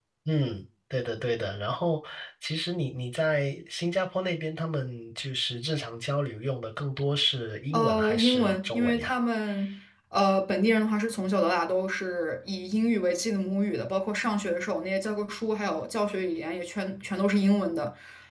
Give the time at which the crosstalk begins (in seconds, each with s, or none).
7.7 s